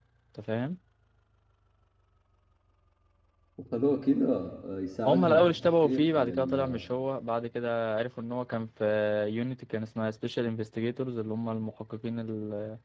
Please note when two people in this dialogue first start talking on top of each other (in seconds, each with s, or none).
5.0 s